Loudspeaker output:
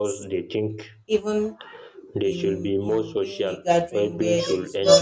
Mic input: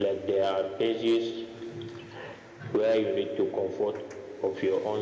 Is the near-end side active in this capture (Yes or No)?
Yes